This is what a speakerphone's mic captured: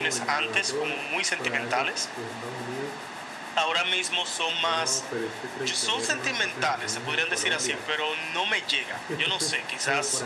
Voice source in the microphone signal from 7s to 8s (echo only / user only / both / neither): both